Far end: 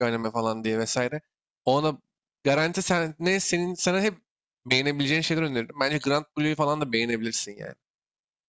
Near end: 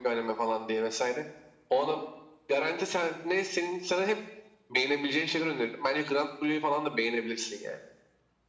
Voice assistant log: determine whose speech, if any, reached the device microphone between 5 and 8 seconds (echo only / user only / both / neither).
echo only